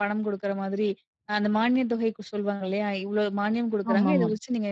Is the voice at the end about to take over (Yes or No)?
No